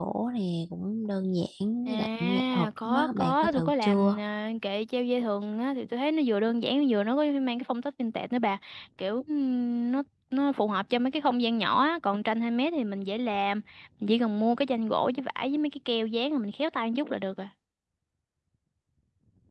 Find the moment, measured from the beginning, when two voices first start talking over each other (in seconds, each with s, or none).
1.9 s